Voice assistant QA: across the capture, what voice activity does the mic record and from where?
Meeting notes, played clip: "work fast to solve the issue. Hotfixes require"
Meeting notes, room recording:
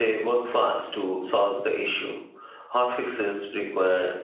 echo only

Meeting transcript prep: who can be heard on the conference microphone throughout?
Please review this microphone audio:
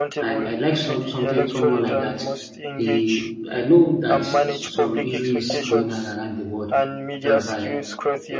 both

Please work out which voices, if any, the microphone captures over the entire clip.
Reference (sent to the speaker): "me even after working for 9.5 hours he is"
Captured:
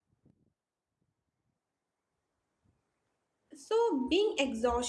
user only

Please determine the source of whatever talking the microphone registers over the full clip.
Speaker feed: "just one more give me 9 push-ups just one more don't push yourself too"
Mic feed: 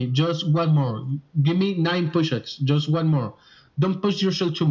echo only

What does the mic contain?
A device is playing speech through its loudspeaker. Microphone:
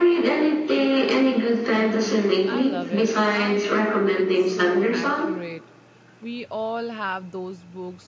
both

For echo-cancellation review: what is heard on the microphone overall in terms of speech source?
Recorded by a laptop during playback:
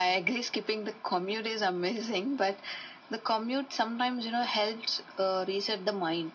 echo only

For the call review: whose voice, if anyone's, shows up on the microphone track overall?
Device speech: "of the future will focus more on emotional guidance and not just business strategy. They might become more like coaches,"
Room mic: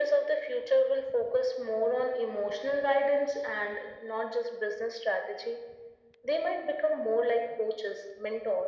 echo only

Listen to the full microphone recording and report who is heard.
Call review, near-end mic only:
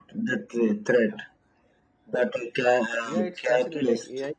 both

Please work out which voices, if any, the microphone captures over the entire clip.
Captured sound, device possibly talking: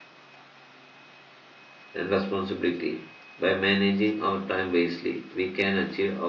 user only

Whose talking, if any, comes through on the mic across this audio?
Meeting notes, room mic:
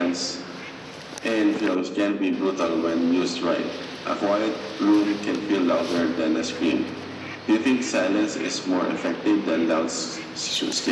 echo only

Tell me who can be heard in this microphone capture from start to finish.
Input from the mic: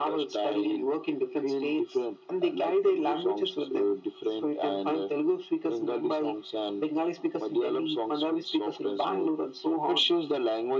echo only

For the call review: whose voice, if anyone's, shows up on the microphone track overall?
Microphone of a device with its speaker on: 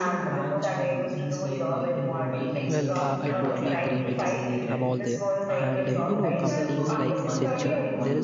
both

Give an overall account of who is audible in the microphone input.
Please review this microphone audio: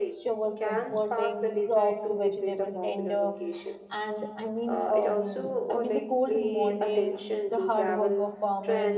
both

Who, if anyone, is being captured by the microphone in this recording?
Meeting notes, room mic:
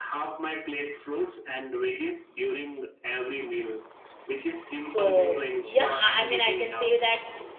both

